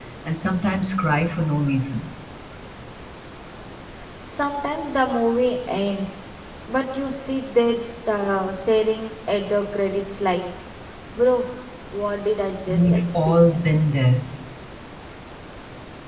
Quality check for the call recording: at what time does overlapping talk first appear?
13 s

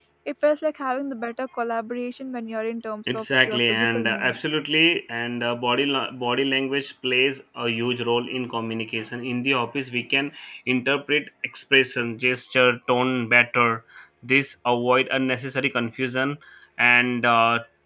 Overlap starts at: 3 s

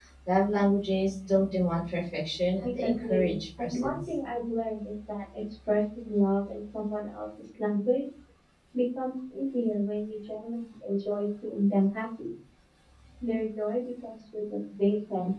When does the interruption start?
3 s

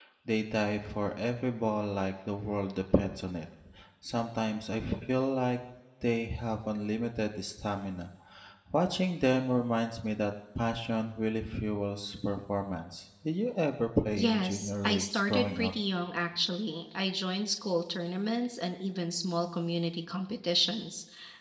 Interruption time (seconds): 14 s

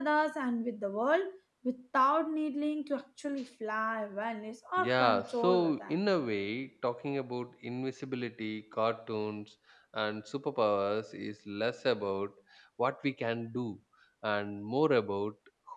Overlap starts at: 5 s

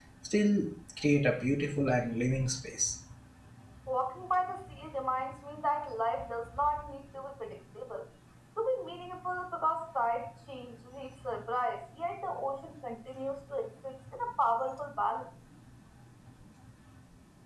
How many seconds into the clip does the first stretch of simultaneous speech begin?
none

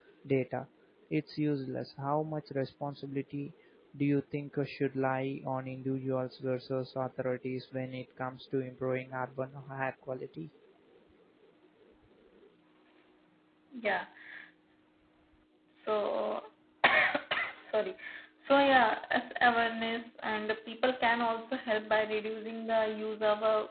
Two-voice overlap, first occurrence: none

